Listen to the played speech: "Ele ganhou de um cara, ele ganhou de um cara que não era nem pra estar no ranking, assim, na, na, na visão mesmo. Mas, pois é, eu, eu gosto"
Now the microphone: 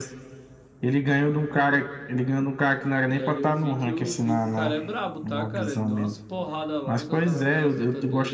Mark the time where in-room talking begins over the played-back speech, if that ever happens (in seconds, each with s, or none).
3.1 s